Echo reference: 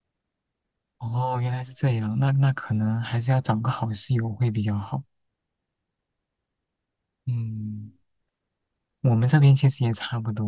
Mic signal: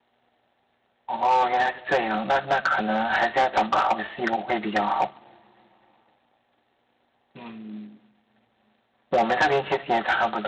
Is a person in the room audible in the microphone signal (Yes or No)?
No